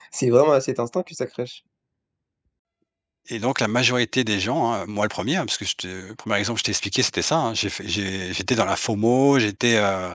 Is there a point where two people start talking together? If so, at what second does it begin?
none

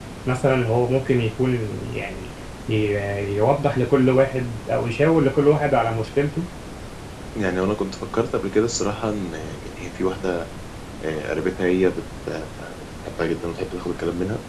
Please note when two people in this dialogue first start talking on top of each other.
none

